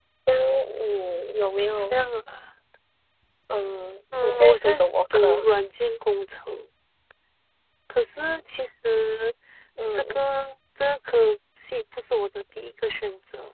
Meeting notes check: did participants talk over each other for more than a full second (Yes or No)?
Yes